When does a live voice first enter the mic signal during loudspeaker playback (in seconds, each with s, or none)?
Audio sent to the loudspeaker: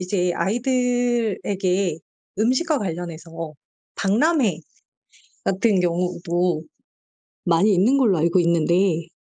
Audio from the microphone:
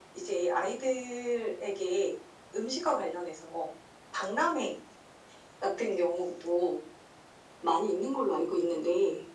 none